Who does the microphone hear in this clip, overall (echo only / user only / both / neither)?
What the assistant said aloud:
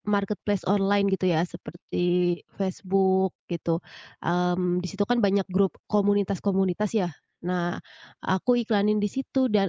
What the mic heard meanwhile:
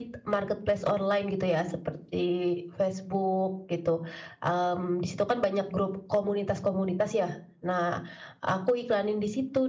echo only